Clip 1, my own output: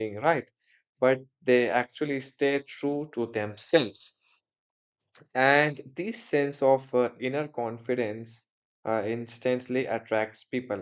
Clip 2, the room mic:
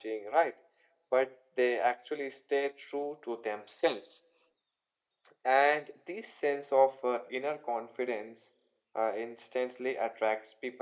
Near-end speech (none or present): none